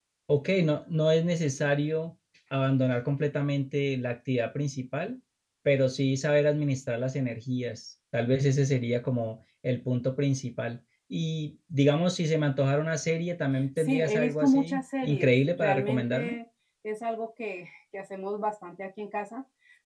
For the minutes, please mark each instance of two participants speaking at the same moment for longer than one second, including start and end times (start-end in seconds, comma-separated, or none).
13.8-16.4